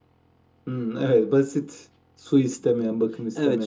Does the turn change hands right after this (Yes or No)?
Yes